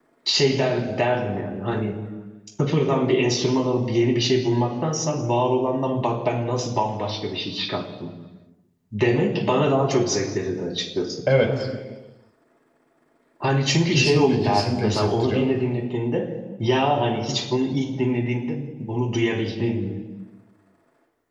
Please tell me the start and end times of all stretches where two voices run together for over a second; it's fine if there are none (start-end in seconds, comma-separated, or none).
13.9-15.4